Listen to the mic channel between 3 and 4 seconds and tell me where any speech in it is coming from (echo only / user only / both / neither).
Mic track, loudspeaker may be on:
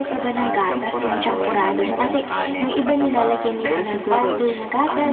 both